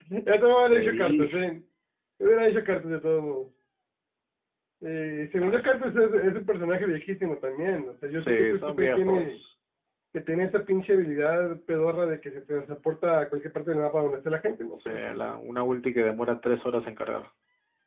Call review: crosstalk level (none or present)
present